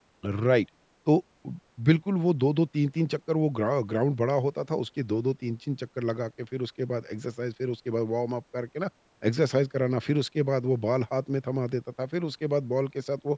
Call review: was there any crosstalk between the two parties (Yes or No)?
No